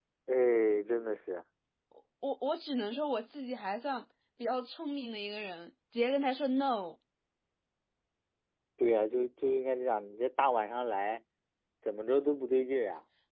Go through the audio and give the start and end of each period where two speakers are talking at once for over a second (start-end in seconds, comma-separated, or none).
none